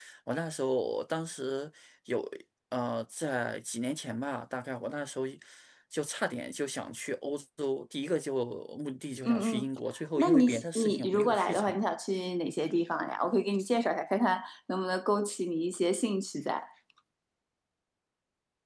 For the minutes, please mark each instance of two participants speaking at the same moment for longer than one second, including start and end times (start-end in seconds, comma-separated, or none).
10.2-11.8